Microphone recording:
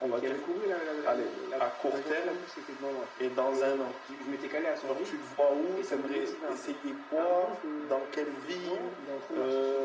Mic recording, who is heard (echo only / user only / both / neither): echo only